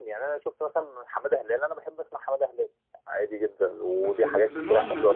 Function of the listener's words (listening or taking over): taking over